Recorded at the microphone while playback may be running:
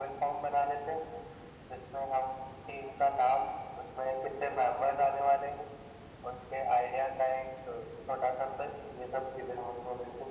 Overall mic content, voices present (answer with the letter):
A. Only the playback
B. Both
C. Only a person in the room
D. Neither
A